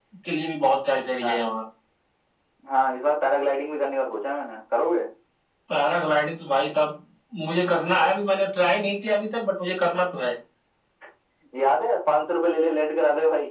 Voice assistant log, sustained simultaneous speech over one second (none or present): none